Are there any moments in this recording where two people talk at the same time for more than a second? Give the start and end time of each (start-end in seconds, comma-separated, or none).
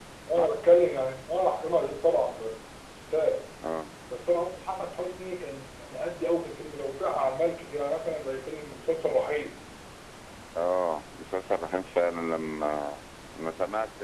none